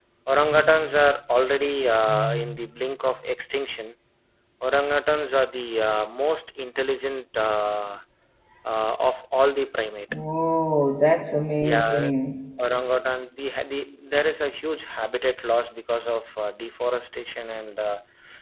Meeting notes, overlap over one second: none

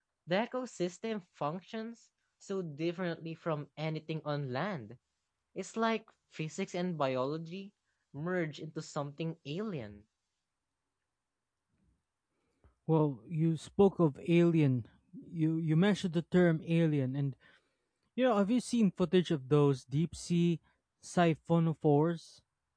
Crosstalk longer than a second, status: none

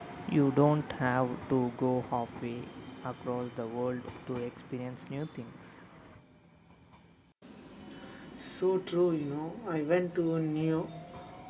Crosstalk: none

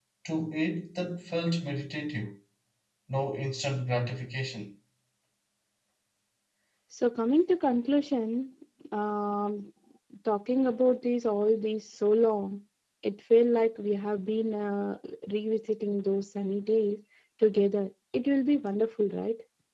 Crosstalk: none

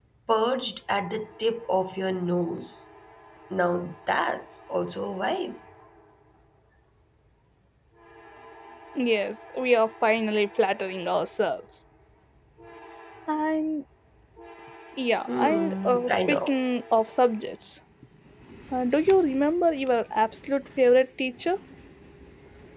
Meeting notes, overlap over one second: present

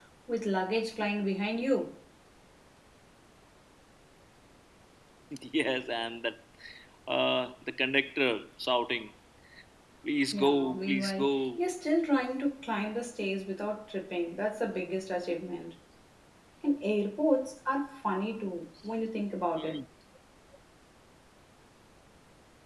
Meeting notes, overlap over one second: present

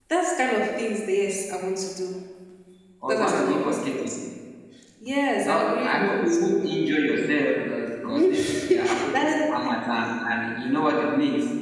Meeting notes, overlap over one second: present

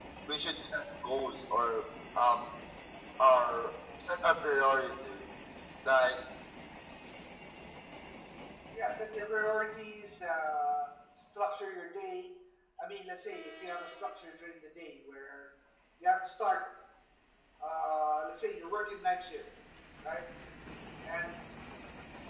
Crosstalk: none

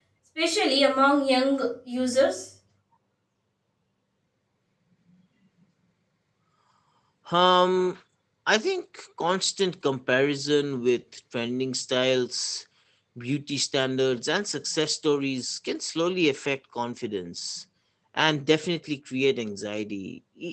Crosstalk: none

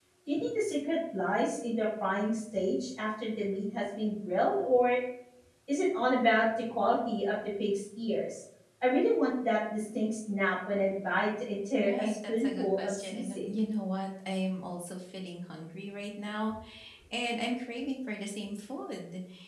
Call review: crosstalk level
present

